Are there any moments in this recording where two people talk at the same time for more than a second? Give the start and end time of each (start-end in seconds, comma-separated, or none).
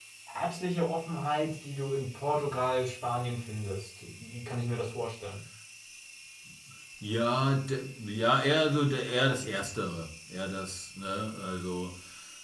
none